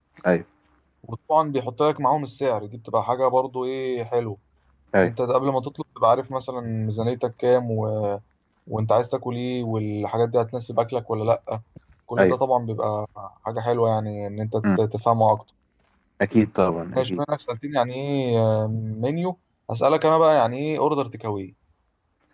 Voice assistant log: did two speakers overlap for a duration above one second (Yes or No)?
No